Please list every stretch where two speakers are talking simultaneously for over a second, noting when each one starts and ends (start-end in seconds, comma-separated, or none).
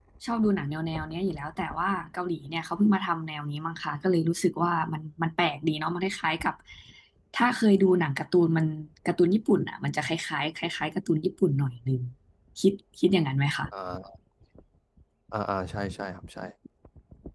none